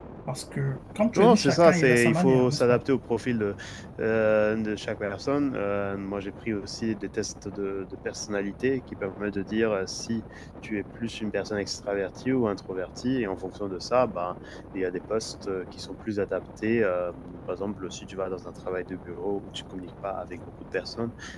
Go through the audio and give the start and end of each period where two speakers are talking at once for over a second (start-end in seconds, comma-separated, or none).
1.1-2.8